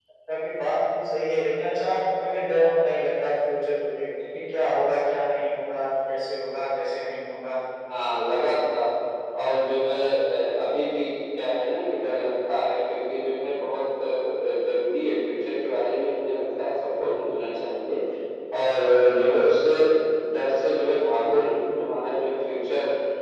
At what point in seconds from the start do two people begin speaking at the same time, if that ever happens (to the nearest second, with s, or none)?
none